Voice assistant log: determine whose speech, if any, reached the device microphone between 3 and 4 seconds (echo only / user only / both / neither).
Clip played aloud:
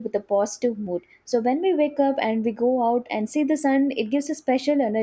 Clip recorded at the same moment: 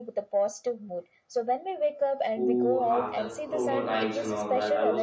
both